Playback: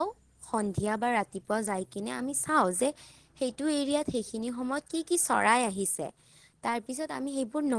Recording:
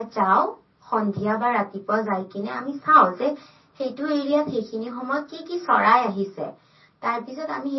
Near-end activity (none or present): none